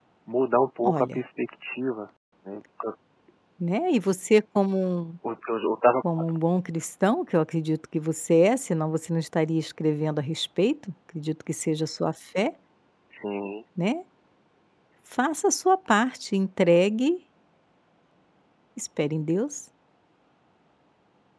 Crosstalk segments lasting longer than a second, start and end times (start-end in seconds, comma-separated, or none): none